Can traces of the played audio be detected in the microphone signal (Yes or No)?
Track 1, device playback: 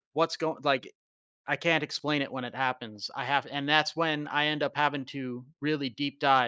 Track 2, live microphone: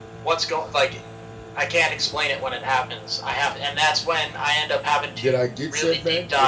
Yes